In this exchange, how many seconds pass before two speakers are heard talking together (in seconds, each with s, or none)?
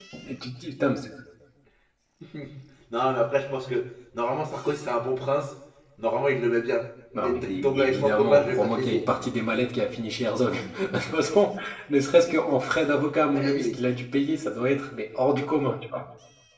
7.2 s